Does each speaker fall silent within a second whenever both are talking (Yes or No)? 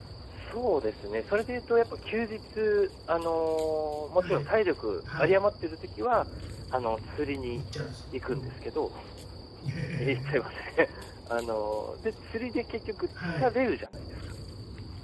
Yes